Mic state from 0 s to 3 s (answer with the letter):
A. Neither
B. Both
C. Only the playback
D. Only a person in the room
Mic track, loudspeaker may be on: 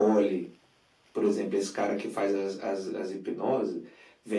C